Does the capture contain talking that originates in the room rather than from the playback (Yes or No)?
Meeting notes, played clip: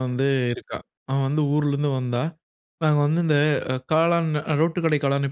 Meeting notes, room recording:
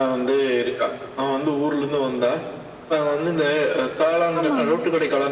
Yes